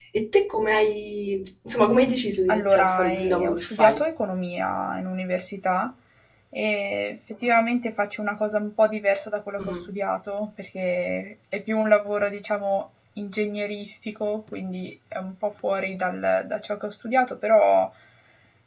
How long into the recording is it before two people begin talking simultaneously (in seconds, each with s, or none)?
2.5 s